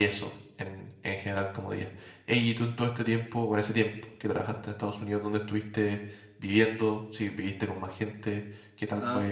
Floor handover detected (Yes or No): Yes